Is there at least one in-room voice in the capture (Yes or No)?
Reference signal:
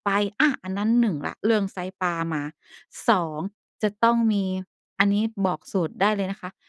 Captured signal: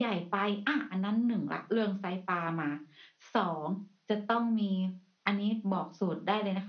No